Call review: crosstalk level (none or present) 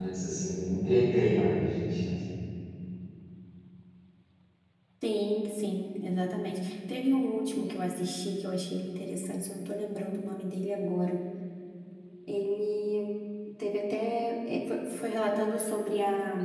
none